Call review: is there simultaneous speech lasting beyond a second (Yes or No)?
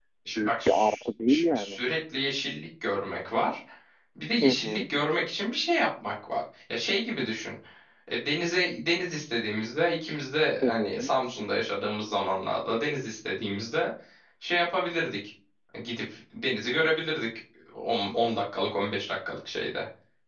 Yes